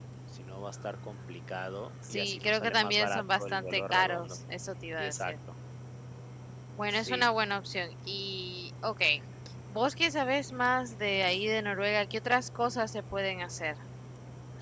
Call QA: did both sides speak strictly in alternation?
No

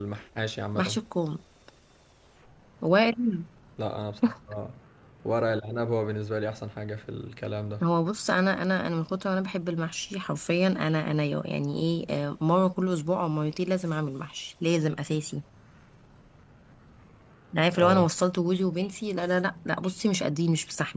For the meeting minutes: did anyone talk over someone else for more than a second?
No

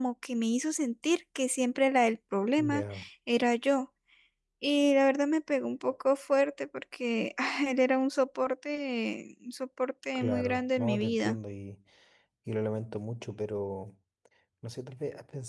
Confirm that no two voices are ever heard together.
No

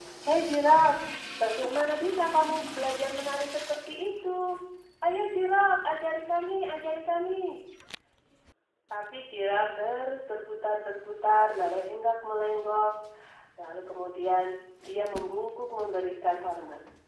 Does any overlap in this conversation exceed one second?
No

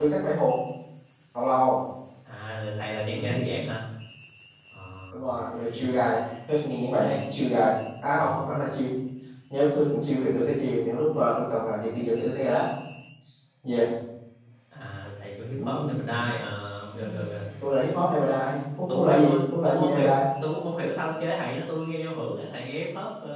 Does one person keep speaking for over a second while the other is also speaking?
Yes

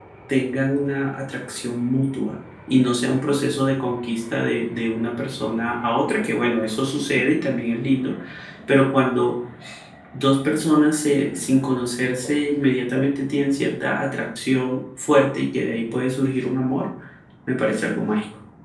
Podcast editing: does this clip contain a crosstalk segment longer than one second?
No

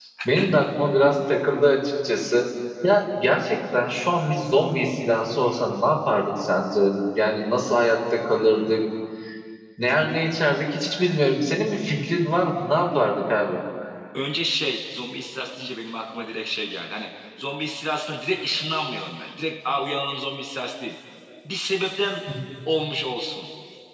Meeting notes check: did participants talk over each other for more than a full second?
No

